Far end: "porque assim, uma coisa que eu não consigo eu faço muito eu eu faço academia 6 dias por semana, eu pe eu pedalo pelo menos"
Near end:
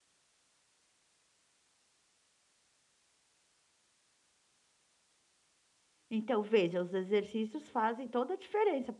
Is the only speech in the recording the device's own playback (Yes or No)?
No